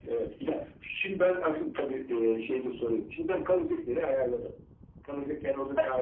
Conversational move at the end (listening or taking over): taking over